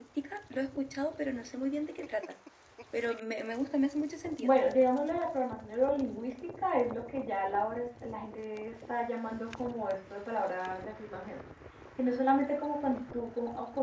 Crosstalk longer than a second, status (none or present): none